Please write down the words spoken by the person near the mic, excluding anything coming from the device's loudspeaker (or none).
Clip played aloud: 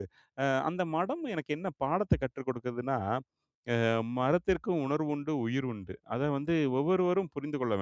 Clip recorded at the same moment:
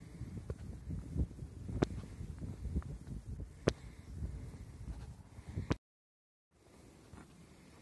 none